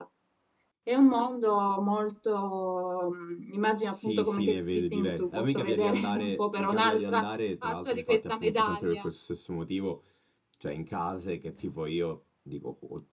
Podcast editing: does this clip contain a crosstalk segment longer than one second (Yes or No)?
Yes